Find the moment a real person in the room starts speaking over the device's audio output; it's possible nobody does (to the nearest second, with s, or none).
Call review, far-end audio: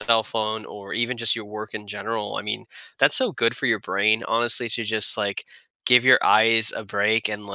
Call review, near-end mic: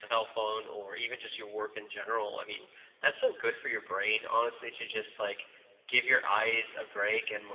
none